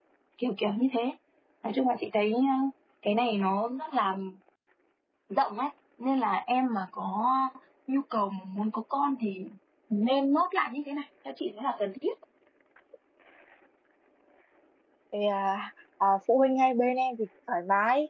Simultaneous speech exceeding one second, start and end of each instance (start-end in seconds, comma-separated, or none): none